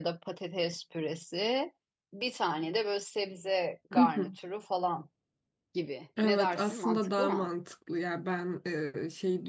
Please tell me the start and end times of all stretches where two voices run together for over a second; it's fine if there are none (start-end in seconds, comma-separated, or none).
6.2-7.5